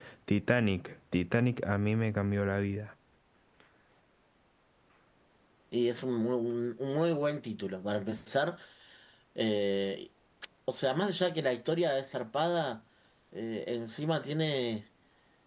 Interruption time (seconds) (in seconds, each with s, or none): none